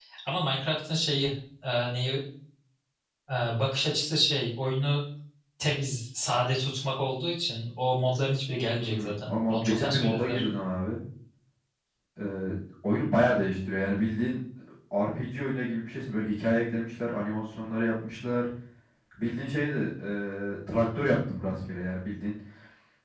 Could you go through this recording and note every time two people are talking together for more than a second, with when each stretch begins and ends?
8.8-10.4

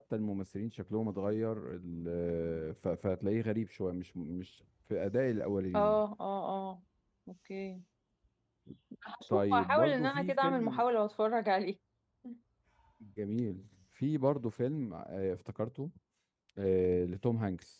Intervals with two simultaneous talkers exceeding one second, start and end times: 9.3-10.8

